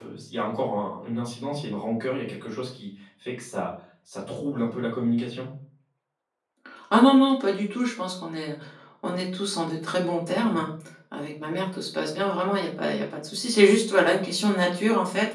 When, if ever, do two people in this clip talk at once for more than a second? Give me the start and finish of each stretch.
none

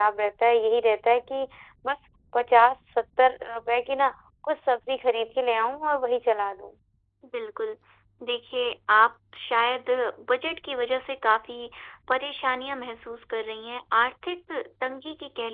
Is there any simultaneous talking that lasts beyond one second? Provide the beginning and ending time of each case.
none

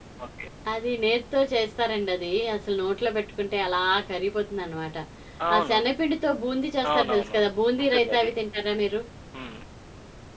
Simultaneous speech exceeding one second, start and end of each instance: none

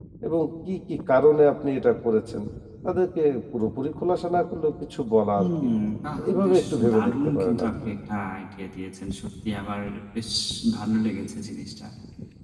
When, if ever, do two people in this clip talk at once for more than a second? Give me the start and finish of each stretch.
6.3-7.9

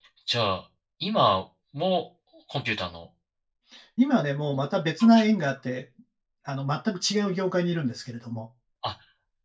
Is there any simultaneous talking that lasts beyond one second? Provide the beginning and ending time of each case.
none

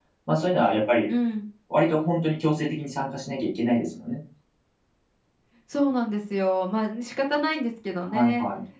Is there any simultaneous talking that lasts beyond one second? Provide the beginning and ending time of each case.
none

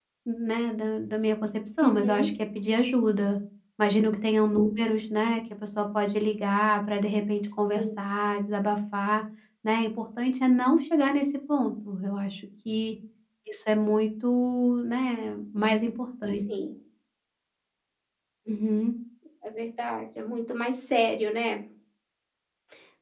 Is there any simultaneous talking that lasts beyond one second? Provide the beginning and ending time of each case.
none

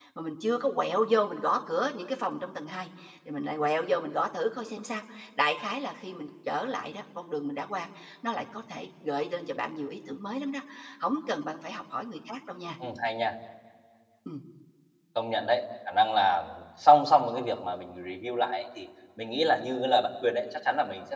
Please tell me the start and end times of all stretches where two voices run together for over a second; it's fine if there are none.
none

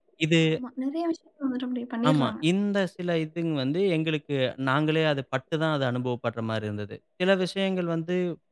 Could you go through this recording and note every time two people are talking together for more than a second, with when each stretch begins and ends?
none

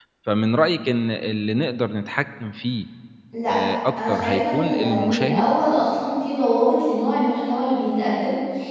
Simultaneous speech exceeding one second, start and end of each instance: 4.1-5.5

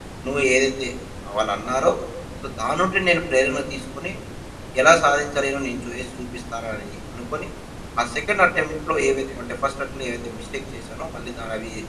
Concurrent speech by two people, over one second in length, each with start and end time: none

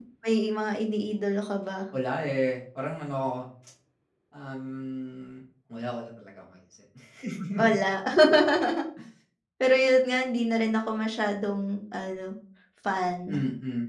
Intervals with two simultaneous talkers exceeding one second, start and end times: none

